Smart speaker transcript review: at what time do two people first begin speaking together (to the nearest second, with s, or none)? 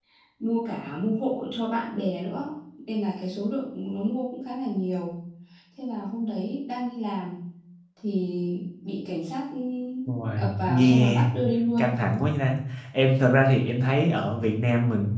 10 s